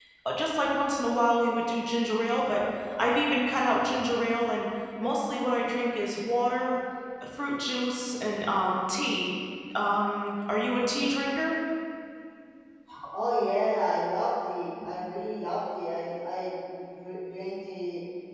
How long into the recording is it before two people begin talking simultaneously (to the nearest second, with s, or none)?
none